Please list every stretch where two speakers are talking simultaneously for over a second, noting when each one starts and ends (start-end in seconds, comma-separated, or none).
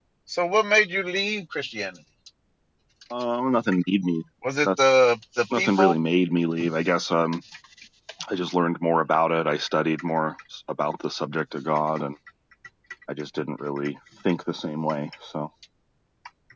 none